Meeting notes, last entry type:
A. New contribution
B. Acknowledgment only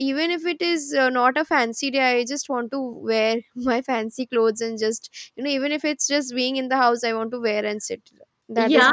A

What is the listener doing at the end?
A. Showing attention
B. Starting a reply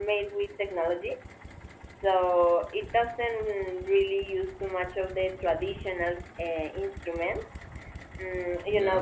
A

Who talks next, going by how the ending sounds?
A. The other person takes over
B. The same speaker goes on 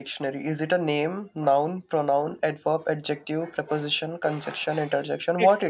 A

